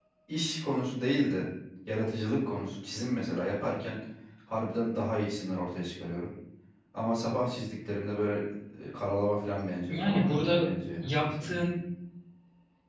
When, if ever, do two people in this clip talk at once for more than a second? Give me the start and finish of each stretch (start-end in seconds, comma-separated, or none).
9.9-11.6